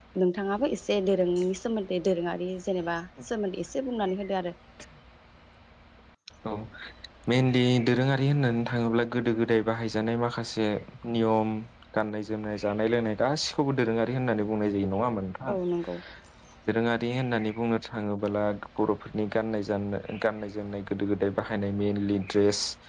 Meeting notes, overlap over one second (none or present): none